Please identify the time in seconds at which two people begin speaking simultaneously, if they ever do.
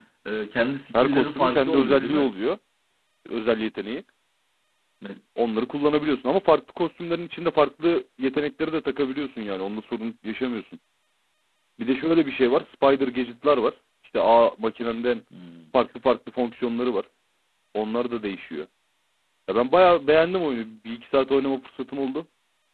0.9 s

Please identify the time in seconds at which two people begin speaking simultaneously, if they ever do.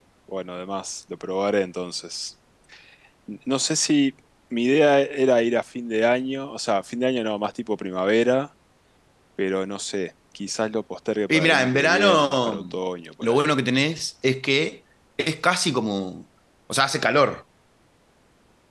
11.3 s

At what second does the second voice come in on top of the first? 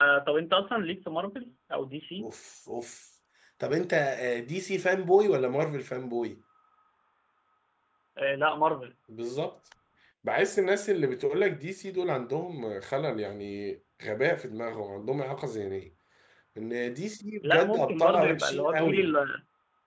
17.4 s

